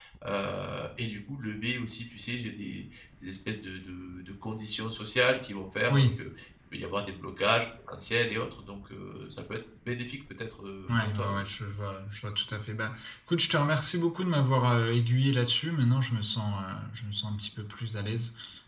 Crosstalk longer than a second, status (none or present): none